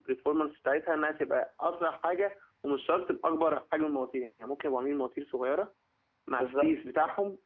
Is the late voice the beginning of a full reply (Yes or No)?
No